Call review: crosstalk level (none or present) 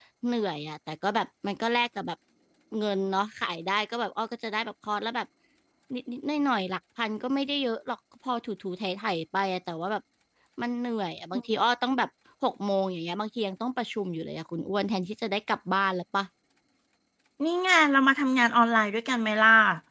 none